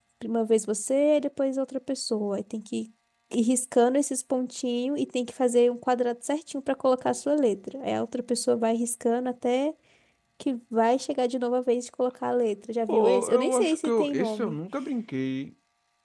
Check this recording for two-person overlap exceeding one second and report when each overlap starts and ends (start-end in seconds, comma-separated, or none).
12.9-14.6